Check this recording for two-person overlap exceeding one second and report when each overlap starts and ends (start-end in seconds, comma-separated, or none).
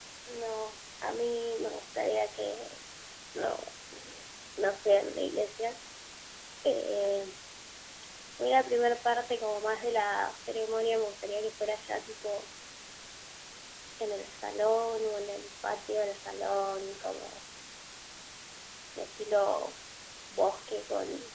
none